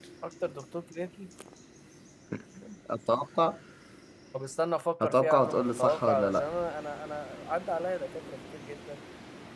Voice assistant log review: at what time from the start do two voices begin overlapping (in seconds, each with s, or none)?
5.0 s